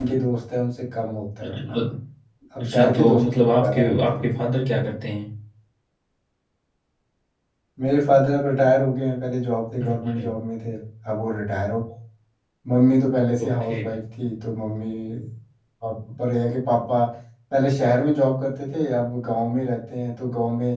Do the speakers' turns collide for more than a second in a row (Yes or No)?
Yes